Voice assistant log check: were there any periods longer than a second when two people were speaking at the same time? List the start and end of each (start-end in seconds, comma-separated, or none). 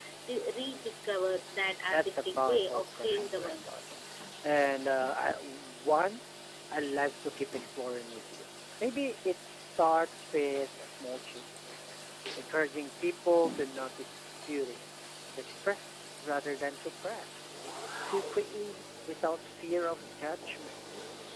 1.9-3.6